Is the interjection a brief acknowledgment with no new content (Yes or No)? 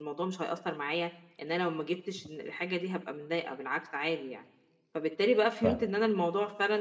Yes